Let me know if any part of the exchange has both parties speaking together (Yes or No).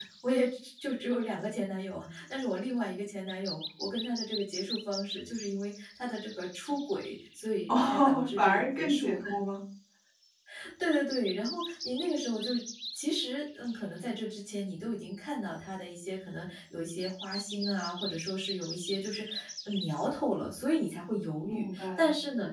Yes